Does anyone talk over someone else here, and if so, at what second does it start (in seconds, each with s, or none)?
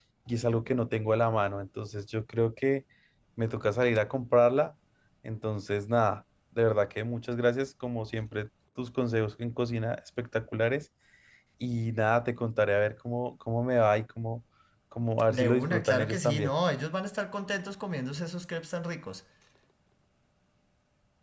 15.3 s